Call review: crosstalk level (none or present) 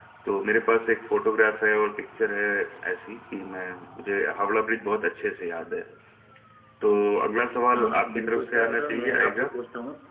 present